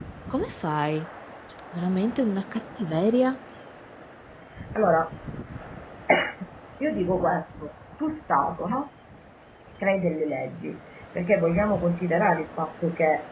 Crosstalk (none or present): none